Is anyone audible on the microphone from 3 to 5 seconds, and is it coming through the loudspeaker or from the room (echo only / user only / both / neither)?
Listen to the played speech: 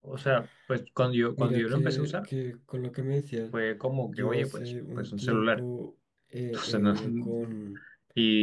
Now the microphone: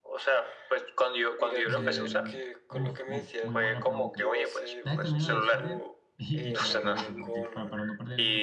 both